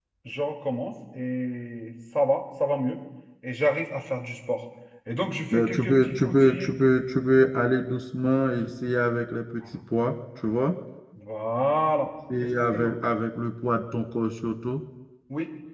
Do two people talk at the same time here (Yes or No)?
Yes